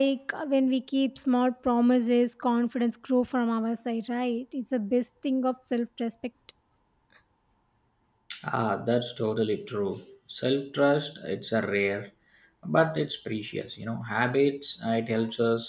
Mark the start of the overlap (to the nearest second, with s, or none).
none